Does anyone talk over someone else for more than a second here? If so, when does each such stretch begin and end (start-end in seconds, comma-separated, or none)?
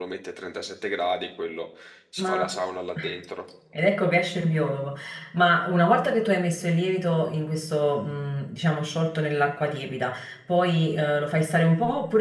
none